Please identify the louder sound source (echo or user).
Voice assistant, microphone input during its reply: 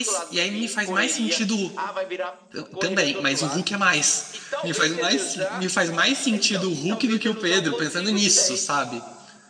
user